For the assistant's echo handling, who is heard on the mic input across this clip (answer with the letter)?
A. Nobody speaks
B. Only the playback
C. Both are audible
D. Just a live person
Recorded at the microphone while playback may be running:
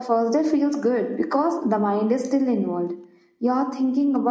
B